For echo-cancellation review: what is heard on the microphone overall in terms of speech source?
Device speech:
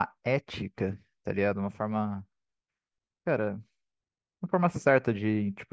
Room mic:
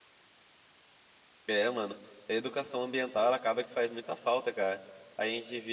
user only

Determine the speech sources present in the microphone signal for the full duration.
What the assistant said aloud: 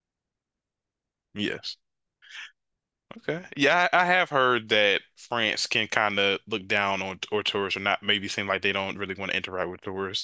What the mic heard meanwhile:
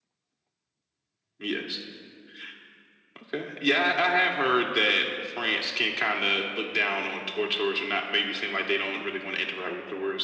echo only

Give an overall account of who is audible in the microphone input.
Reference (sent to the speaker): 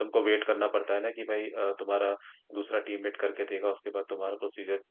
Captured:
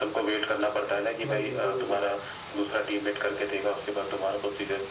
both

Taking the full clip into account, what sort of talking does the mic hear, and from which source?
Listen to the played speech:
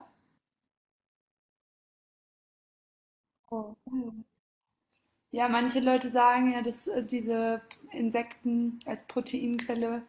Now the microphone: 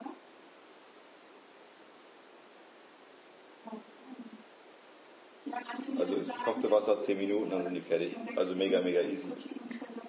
both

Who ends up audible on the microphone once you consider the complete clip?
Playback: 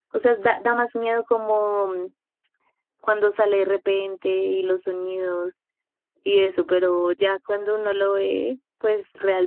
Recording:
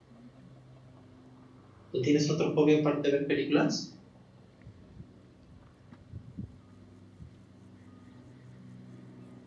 user only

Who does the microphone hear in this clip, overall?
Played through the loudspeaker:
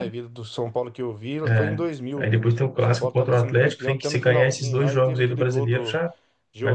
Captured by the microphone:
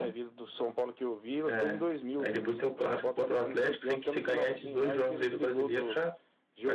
echo only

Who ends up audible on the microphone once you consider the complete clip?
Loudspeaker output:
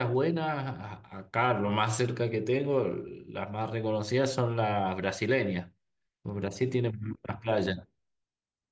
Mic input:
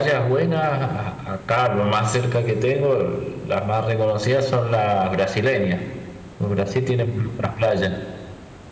echo only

